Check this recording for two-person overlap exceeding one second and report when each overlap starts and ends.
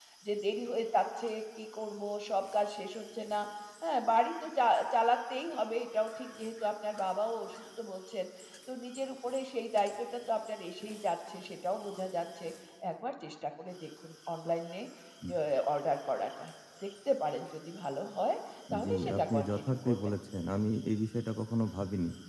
18.8-20.1

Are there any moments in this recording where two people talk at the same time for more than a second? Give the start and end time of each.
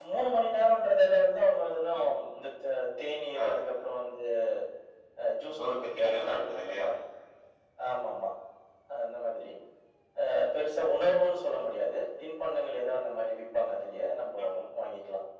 5.6-6.9

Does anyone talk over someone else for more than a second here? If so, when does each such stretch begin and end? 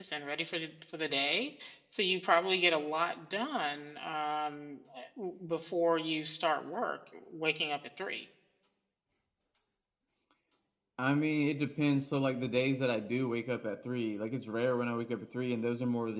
none

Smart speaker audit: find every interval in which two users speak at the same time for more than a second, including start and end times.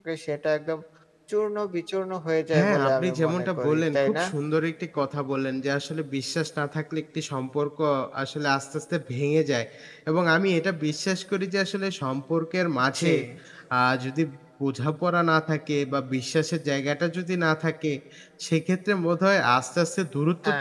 2.5-4.2

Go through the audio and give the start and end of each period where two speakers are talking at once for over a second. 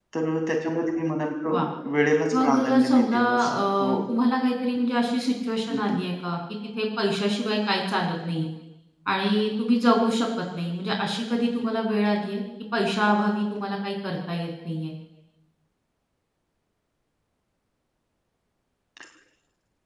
2.4-4.0

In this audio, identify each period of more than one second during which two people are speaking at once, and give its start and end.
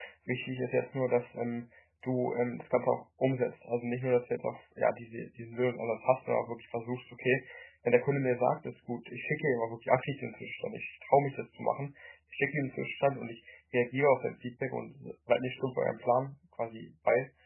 none

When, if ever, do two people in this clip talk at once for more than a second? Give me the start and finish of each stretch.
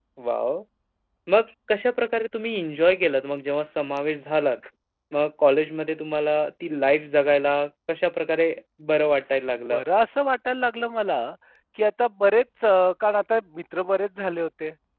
none

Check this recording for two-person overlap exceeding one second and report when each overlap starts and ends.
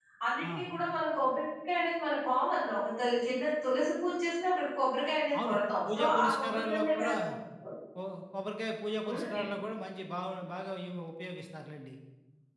5.4-7.1

